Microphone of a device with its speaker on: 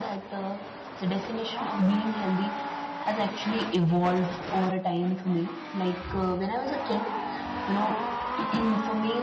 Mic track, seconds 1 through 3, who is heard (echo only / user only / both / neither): user only